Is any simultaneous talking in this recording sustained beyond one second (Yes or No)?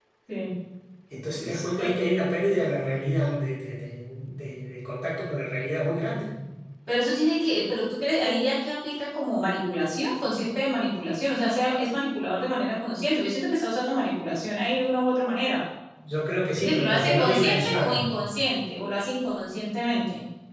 Yes